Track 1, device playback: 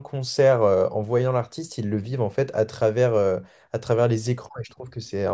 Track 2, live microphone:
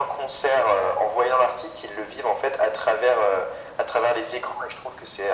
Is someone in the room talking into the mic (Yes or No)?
No